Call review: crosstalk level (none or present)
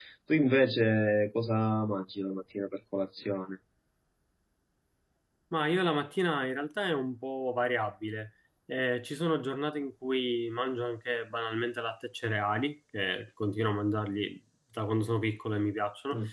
none